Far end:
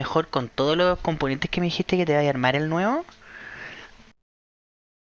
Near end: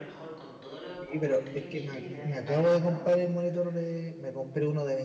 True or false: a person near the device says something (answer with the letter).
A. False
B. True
B